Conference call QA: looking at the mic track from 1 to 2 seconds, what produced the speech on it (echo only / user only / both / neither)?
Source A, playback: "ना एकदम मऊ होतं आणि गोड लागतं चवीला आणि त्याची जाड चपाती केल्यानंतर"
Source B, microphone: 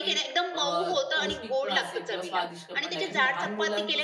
both